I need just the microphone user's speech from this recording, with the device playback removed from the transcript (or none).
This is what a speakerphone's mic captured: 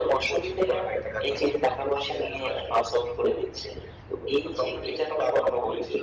none